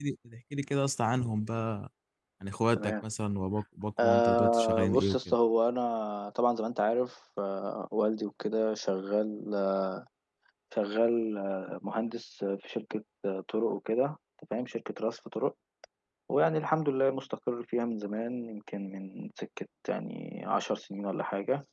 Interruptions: present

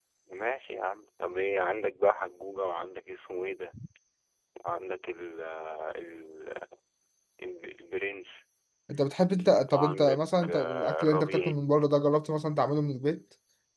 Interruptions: present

